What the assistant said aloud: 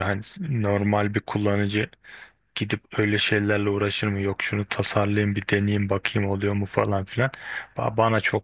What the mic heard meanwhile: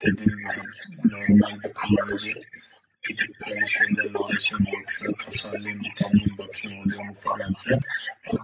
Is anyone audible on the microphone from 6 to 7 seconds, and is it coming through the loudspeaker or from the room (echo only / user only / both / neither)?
echo only